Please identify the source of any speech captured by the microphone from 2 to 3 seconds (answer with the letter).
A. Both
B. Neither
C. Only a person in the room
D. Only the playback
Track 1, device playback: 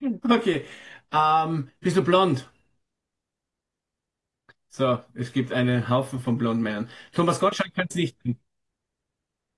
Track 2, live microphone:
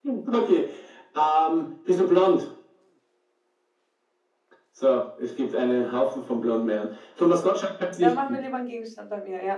D